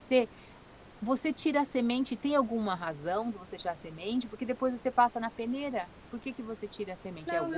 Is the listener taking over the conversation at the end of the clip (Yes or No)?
Yes